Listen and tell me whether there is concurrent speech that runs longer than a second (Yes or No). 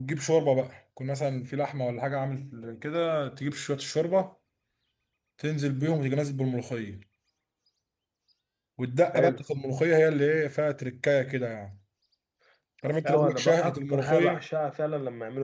Yes